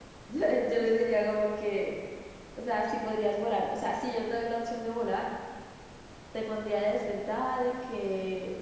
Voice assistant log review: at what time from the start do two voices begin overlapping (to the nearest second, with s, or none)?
none